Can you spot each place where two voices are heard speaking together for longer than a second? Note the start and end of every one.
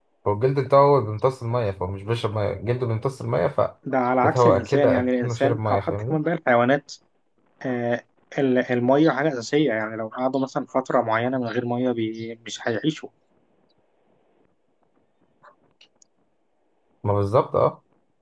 4.2-6.2

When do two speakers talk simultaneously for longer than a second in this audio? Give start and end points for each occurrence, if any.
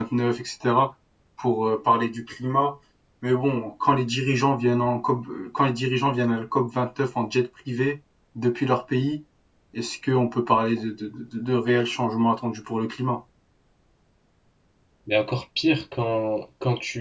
none

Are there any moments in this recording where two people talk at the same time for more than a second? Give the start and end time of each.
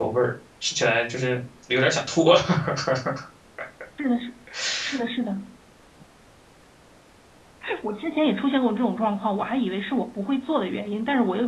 none

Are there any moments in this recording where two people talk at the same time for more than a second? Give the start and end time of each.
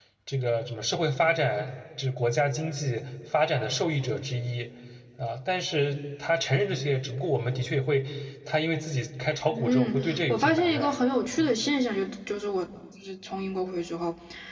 9.5-10.9

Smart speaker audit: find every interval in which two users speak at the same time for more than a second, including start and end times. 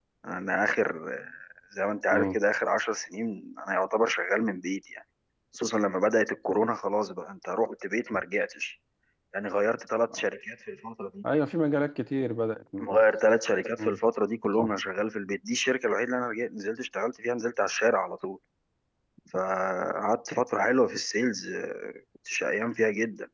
none

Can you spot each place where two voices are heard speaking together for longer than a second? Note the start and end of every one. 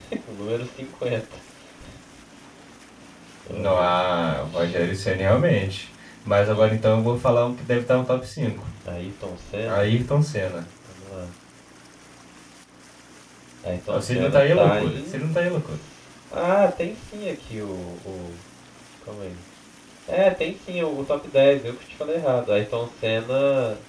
13.9-15.2

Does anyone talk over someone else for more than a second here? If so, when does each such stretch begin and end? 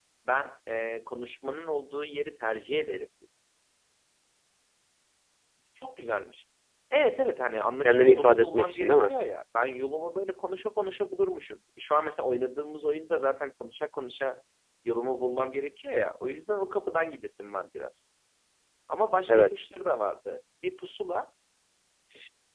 7.8-9.1

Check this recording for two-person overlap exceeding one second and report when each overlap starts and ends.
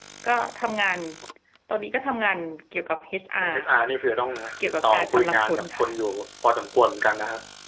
4.6-5.8

